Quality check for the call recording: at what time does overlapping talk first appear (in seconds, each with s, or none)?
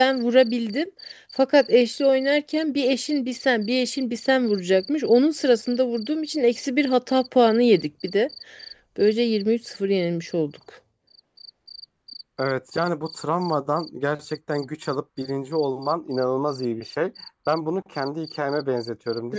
none